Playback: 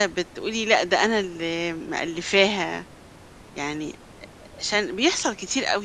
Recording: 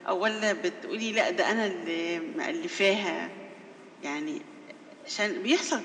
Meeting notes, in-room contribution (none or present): none